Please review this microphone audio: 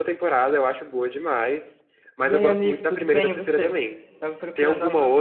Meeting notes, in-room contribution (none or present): present